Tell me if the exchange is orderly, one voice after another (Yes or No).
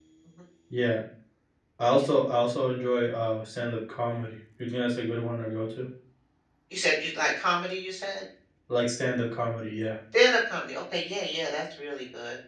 Yes